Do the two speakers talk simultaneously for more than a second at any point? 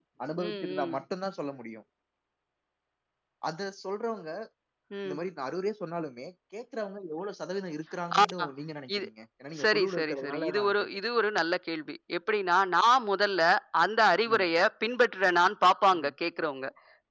Yes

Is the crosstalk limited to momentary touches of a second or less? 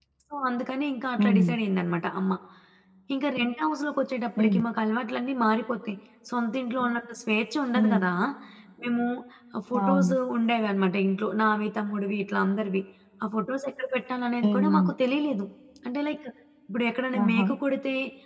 Yes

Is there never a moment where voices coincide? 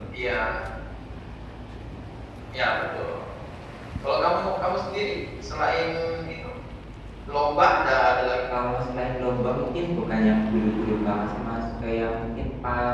Yes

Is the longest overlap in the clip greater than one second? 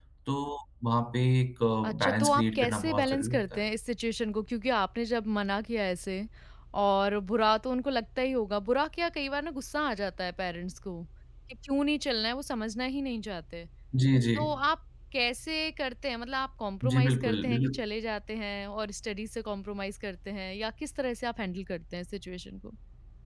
Yes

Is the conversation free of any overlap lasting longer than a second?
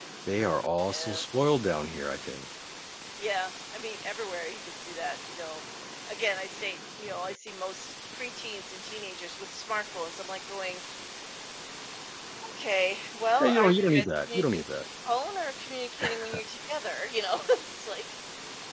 No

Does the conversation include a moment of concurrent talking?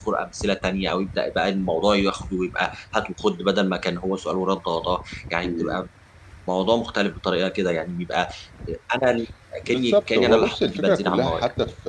Yes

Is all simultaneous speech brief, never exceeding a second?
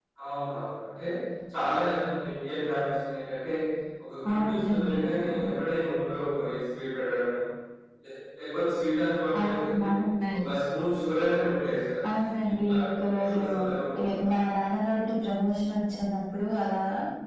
No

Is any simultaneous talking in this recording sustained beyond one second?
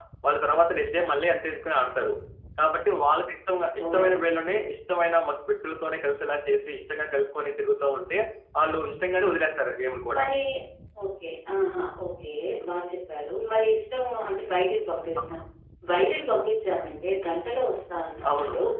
No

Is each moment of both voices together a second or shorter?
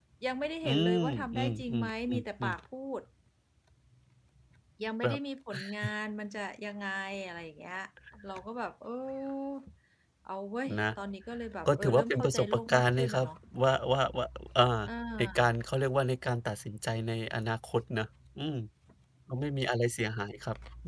No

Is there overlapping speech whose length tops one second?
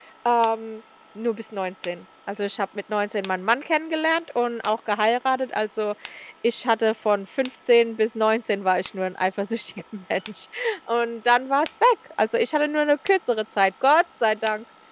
No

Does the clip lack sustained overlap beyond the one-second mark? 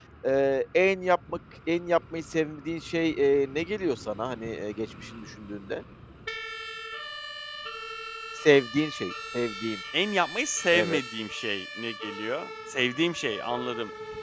Yes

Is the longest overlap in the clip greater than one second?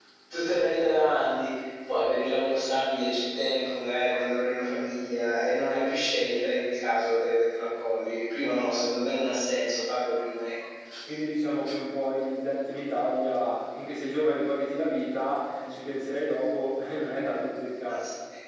No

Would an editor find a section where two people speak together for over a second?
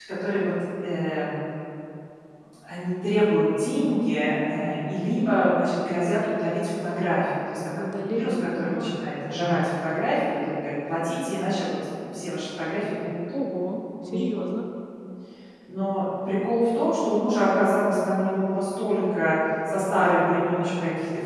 Yes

